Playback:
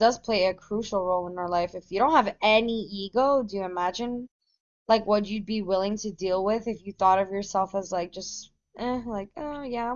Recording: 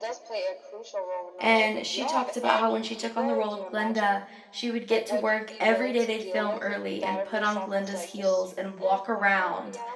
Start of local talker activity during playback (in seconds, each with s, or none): 1.4 s